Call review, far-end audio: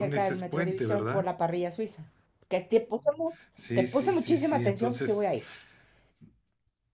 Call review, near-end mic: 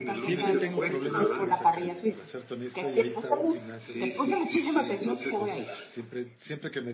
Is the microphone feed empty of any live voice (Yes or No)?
No